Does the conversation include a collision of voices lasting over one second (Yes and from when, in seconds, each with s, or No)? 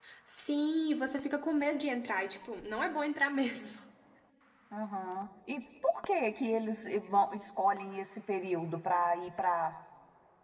No